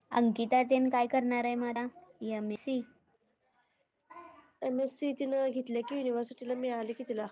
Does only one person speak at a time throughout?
Yes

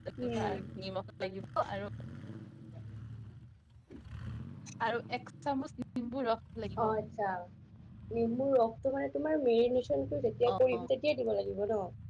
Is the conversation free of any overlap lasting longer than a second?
Yes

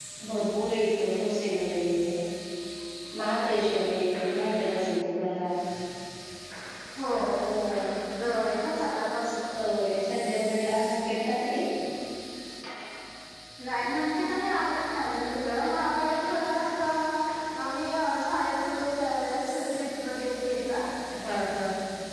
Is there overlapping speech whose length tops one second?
No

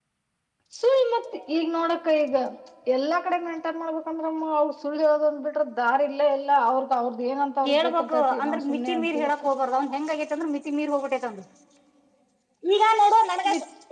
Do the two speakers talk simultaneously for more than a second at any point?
Yes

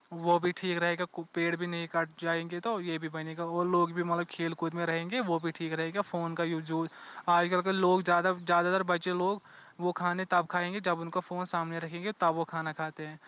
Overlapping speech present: No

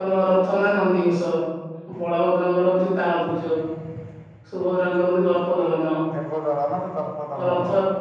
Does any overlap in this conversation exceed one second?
No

